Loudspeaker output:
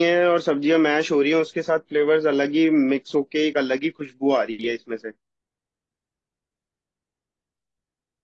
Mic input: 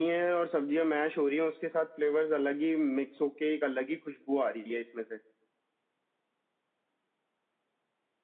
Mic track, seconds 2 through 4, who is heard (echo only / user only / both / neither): echo only